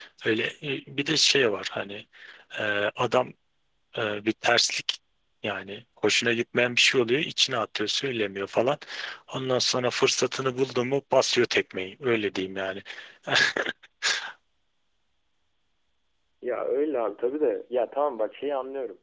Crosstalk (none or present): none